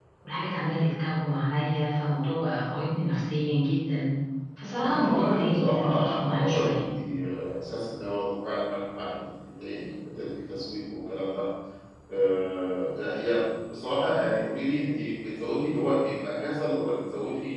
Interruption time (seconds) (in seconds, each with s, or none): 4.8 s